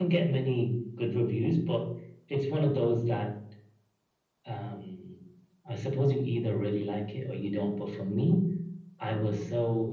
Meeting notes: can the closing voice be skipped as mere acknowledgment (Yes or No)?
Yes